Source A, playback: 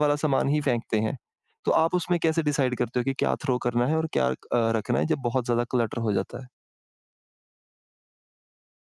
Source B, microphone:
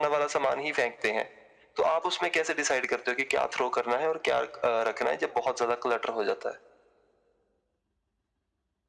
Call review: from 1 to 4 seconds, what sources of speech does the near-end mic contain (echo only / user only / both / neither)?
echo only